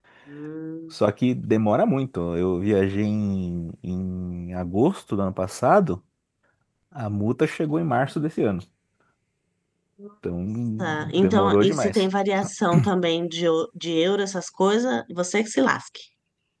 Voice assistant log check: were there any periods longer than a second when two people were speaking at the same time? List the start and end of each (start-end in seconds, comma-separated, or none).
10.8-12.0